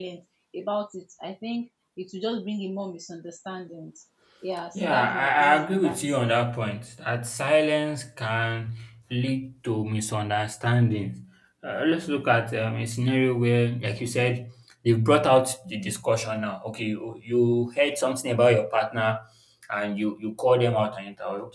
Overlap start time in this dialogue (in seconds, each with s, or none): 4.8 s